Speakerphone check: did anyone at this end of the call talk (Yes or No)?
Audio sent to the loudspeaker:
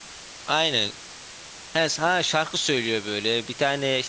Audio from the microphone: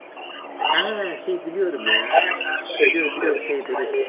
Yes